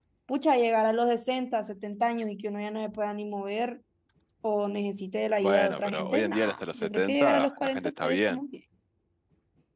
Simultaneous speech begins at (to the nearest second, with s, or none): 5 s